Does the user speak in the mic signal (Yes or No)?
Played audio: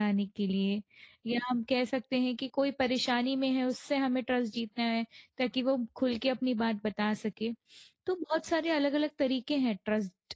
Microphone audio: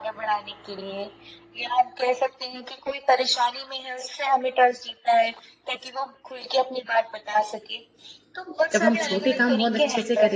Yes